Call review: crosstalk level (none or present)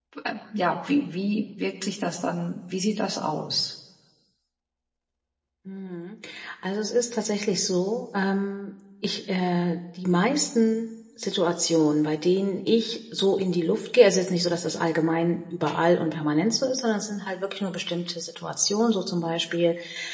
none